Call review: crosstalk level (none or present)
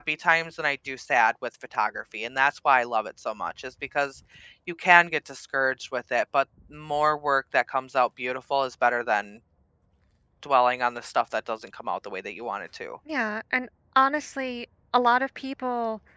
none